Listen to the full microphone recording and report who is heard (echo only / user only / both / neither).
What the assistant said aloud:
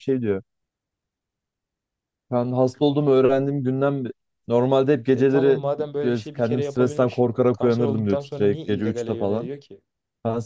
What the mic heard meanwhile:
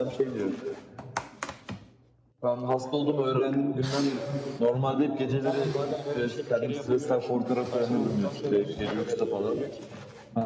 echo only